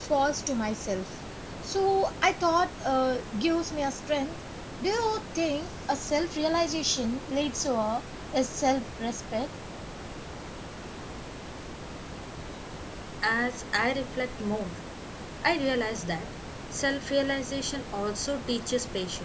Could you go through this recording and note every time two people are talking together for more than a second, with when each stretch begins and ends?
none

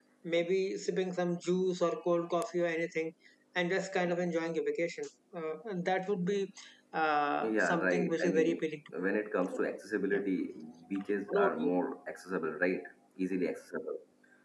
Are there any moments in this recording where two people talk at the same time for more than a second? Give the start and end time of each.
7.4-8.6

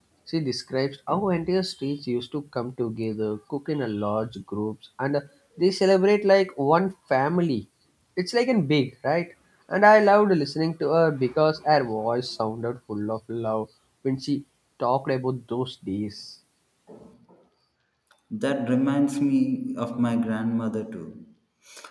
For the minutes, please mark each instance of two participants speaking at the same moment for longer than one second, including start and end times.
none

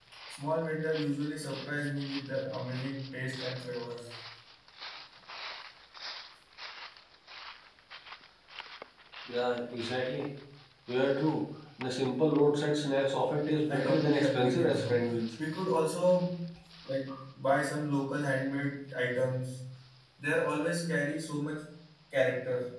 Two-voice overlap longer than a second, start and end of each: 13.7-15.2

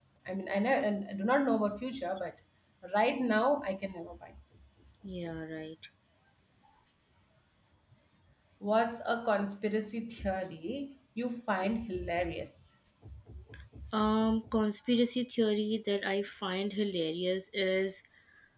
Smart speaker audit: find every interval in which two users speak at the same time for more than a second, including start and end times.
none

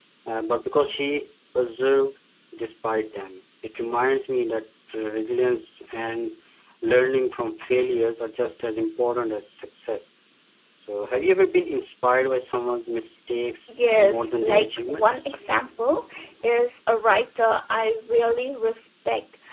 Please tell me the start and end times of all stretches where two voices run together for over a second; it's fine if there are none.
13.7-15.3

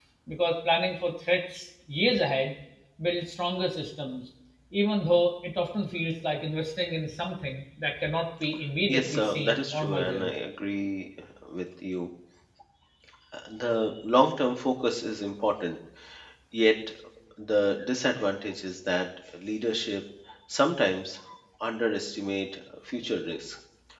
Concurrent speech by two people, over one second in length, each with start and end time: 8.9-10.3

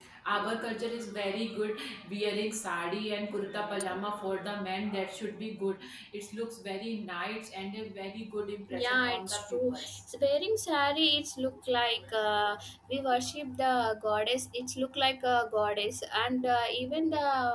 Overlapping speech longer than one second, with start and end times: 8.8-10.0

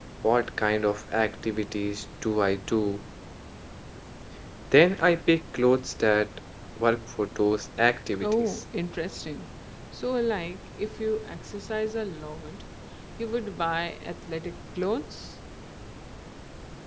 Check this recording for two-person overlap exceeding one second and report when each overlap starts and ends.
none

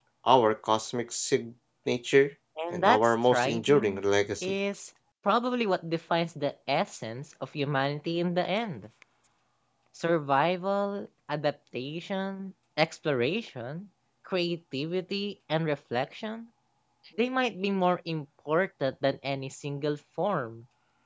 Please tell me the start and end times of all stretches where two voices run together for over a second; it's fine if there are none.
2.7-4.0

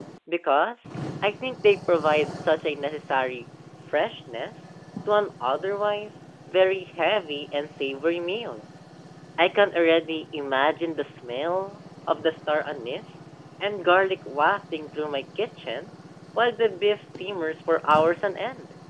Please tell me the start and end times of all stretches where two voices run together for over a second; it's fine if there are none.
none

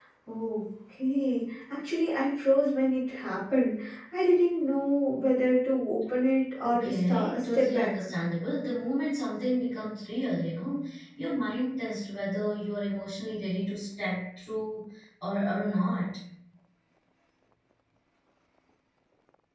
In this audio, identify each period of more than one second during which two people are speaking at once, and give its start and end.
6.6-8.0

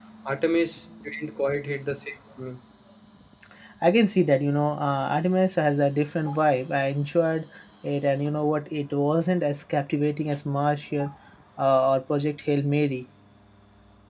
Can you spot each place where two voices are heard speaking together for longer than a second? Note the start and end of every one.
none

